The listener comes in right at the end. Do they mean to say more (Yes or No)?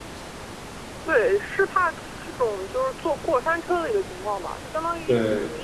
No